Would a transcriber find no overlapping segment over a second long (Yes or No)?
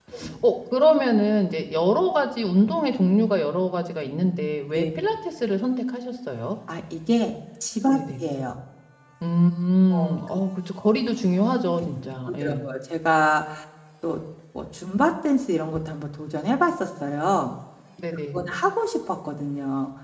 Yes